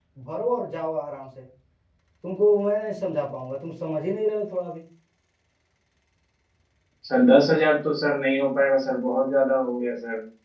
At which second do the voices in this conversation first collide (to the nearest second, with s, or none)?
none